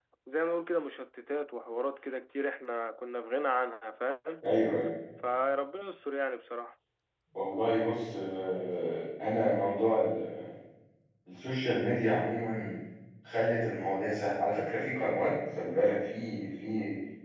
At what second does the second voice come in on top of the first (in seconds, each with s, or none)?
none